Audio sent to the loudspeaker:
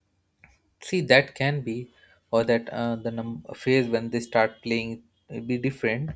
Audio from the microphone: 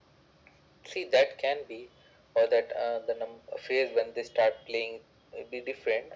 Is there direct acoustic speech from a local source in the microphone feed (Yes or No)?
No